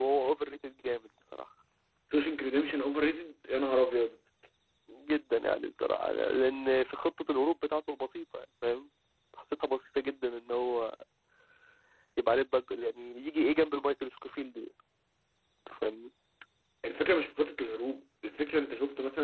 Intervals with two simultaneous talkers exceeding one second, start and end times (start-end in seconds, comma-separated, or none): none